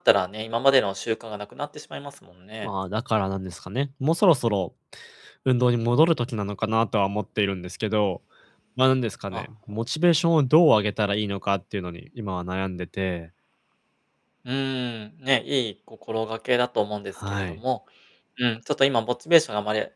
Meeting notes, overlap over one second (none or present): none